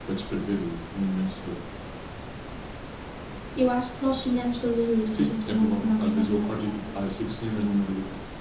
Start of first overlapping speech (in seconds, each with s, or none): 5.1 s